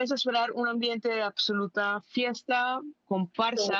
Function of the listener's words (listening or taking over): listening